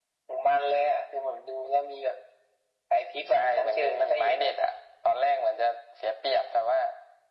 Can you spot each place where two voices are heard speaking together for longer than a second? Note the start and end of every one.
3.3-4.5

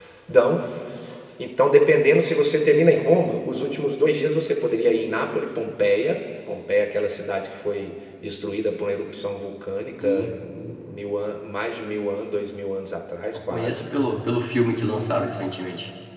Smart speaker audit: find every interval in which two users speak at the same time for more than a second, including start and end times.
none

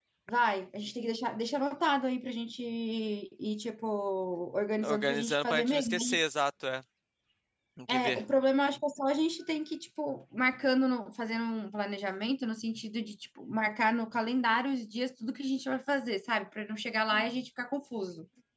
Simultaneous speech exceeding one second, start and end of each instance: 4.8-6.2

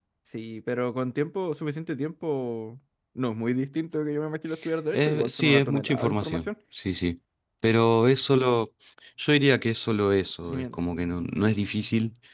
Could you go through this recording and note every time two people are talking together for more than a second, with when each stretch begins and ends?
4.9-6.5

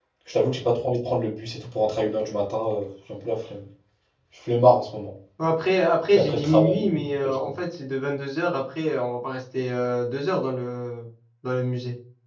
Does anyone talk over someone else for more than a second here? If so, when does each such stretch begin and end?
6.1-7.5

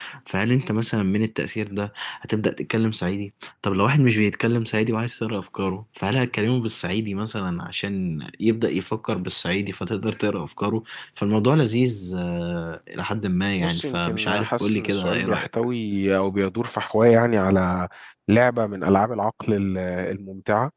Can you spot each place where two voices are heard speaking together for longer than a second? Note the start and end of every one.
13.6-15.5

